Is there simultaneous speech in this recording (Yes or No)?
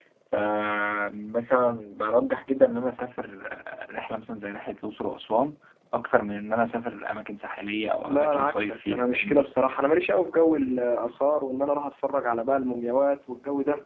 Yes